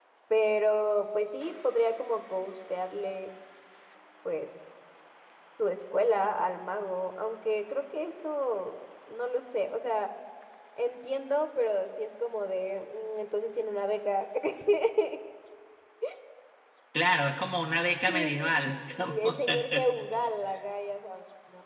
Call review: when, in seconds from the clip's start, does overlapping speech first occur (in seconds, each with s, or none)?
18.1 s